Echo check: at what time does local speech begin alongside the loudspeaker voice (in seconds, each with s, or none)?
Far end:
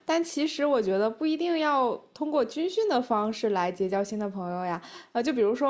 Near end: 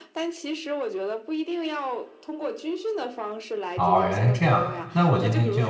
3.7 s